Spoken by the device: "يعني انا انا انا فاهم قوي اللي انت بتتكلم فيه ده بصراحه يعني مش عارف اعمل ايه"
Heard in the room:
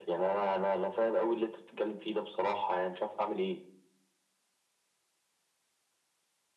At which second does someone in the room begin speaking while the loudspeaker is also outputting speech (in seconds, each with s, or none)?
none